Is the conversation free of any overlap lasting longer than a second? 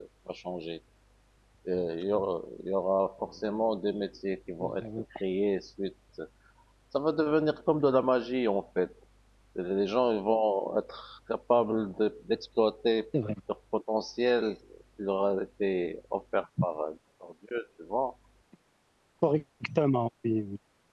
Yes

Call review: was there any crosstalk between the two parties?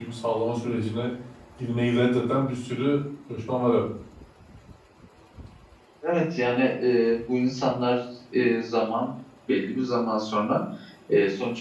No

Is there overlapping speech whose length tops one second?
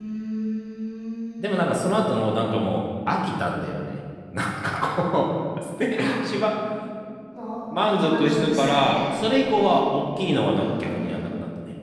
Yes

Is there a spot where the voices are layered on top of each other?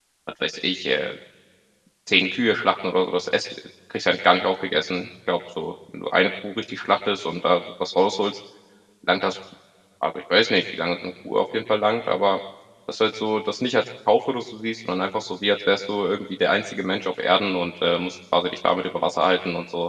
No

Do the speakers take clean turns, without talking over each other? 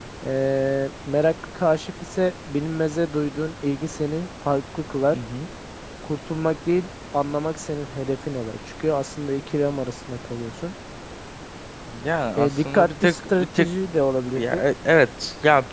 No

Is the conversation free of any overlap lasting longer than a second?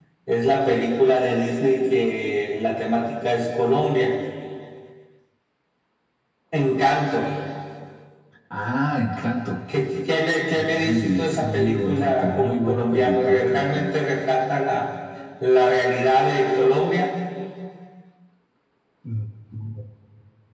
No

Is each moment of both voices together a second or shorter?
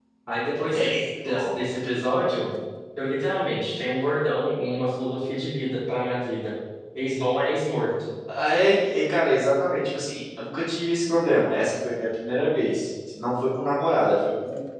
Yes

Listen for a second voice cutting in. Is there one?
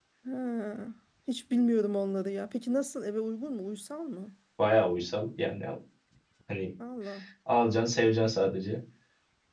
No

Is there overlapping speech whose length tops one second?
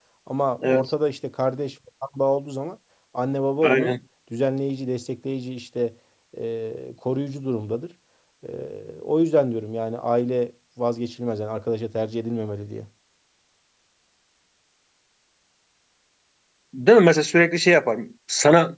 No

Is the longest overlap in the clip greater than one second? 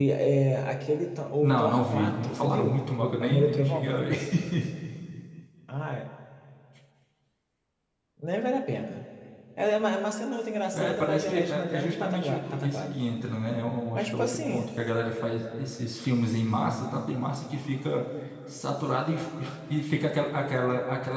Yes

